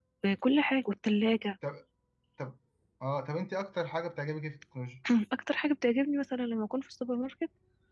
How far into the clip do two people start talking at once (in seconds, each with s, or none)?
none